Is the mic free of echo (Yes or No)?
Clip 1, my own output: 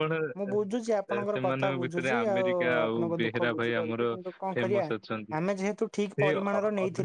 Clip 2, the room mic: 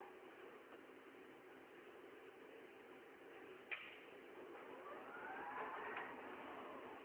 Yes